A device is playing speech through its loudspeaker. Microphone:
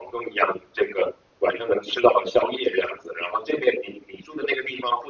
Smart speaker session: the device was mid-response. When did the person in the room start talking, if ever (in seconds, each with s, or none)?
none